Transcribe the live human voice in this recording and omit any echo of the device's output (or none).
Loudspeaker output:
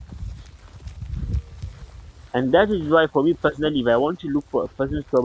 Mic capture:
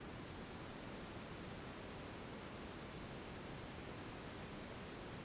none